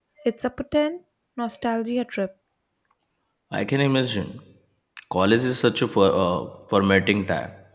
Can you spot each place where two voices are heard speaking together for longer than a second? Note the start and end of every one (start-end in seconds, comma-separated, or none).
none